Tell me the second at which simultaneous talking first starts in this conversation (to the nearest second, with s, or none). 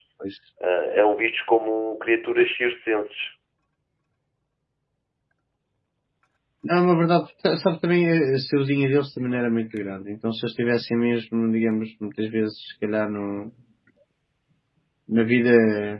none